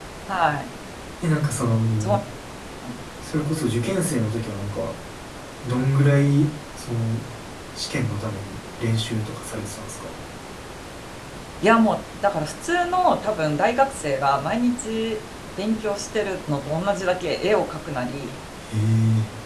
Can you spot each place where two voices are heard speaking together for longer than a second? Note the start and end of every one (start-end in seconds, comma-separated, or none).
none